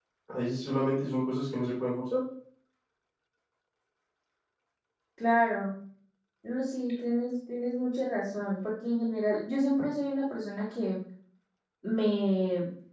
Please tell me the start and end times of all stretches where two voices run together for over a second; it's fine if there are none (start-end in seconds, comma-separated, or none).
none